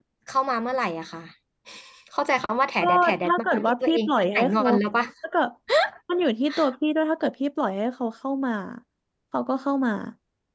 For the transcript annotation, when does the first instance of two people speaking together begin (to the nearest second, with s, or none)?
3 s